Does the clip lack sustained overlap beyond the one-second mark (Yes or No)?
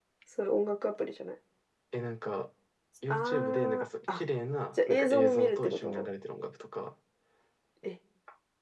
No